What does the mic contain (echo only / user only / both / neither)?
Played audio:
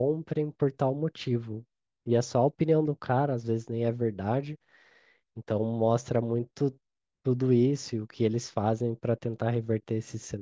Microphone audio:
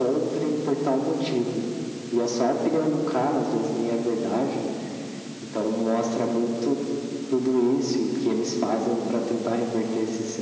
echo only